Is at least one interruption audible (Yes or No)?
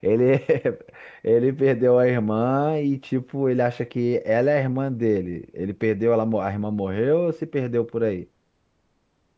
No